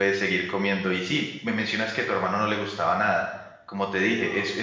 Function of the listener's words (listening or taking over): listening